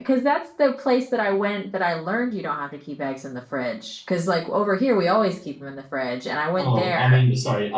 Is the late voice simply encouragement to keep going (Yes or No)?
No